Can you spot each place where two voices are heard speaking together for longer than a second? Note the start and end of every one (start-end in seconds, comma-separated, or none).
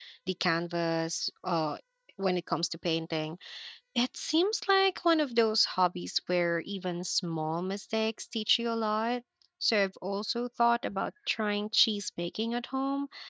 none